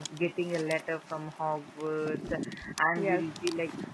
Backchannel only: Yes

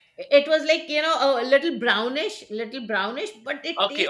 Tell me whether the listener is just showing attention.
No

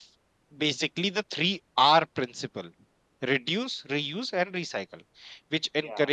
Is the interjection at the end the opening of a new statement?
No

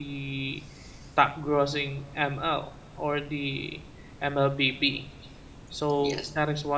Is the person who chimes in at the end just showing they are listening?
Yes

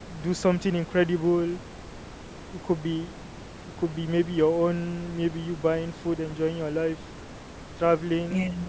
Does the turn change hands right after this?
No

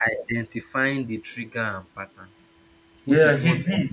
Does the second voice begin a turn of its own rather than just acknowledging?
Yes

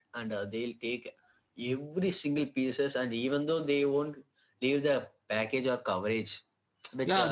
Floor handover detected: Yes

